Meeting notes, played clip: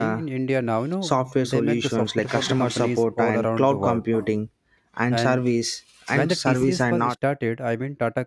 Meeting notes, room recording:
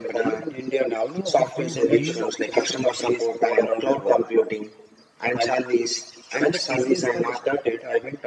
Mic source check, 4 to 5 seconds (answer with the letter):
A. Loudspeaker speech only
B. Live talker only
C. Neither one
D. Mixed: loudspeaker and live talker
A